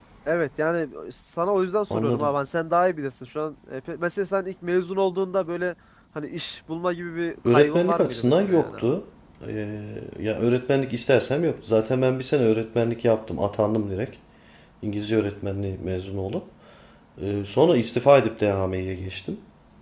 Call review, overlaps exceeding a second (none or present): present